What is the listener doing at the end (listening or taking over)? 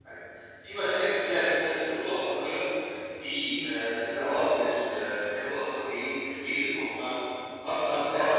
taking over